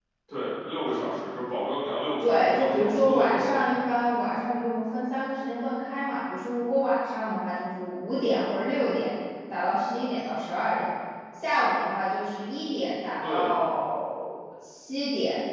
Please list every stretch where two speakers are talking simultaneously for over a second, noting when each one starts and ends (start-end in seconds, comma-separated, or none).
2.2-3.5